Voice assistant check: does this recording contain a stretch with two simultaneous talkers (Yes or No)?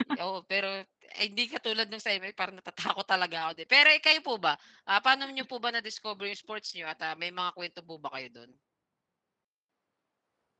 No